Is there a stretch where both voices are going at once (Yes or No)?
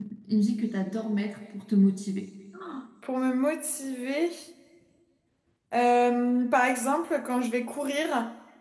No